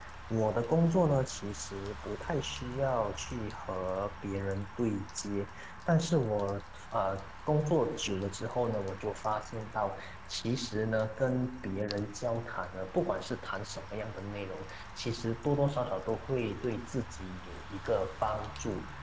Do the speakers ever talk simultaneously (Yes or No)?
No